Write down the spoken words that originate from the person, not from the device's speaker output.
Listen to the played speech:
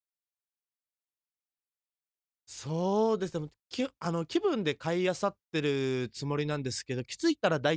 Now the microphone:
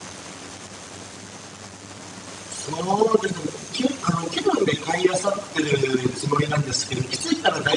none

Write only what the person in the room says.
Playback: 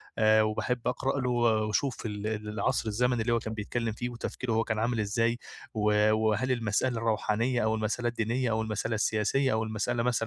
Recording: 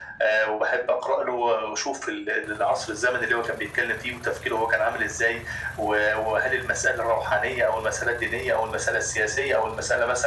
none

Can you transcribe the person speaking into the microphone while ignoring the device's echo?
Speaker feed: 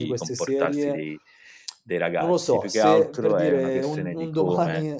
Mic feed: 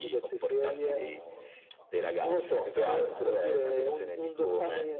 diciamo appunto centrale nella società

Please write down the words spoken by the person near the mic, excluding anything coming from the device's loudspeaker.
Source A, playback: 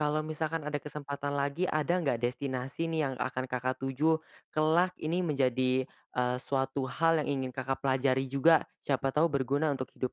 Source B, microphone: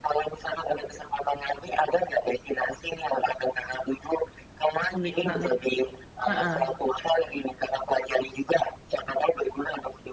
Unik banget. Heeh.

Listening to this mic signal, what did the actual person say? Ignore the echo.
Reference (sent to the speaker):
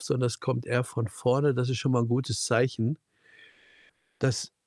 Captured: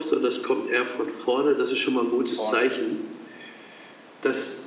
Von vorne.

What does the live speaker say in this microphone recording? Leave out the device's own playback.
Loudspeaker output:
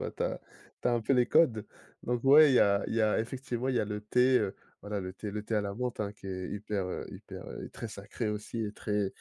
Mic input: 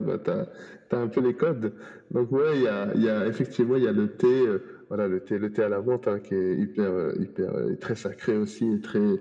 none

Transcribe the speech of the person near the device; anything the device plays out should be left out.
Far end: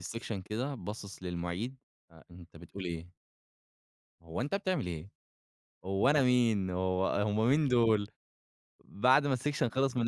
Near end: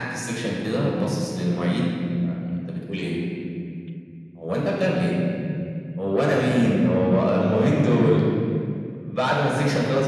none

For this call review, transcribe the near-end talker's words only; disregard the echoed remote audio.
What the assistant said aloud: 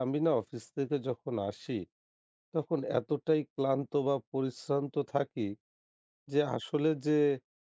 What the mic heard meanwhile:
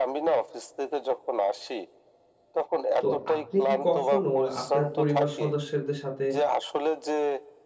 তো আপনি কি কখনো আপনার পরিবার সদস্যদের সাথে

